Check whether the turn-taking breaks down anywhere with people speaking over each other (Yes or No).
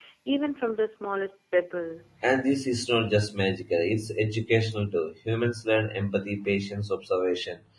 No